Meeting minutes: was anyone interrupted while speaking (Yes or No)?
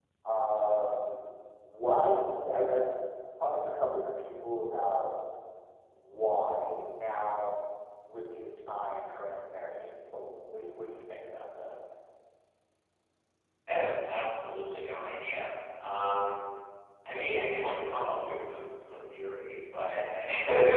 No